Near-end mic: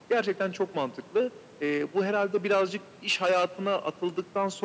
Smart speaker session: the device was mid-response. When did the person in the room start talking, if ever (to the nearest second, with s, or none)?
none